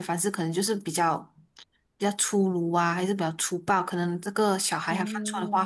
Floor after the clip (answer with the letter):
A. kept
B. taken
A